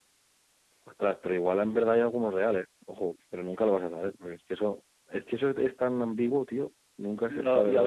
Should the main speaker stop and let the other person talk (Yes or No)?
Yes